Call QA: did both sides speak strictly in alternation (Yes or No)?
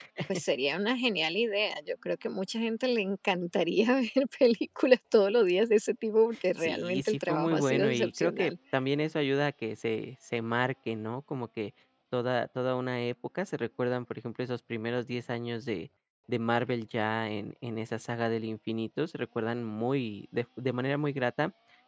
No